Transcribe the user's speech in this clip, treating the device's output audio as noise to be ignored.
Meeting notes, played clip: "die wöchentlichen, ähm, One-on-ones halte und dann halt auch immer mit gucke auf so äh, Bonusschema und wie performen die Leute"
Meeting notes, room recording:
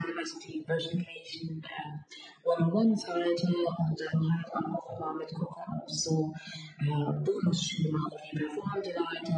none

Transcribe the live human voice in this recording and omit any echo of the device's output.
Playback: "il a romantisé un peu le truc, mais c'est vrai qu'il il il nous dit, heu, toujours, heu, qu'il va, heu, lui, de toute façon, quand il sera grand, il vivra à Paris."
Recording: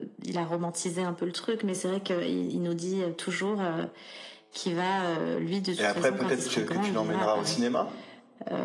et après peut-être tu que tu l'emmèneras au cinéma?

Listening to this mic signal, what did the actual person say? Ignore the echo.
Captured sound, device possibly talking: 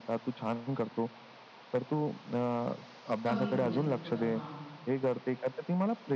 कमी बोलायचं थोडं. हां,

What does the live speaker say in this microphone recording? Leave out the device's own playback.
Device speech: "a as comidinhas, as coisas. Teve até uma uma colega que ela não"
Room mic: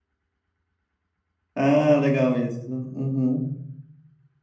ah, legal isso. Uhum,

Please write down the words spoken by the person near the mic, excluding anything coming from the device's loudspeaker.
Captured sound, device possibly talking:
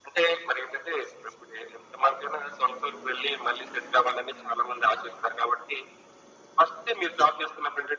none

